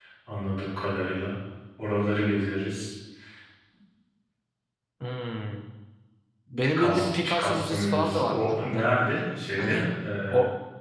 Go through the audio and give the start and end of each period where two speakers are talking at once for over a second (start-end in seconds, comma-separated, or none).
6.8-8.8